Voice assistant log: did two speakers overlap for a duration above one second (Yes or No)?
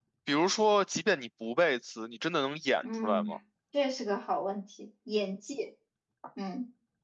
No